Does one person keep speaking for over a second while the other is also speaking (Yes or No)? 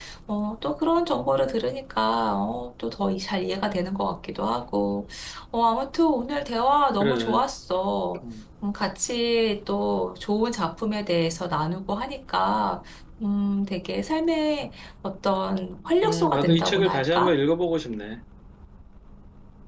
Yes